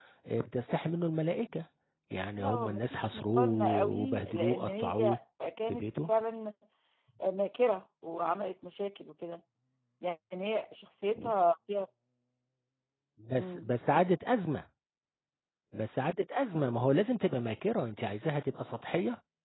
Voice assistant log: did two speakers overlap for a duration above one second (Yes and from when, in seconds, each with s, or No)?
Yes, from 2.4 s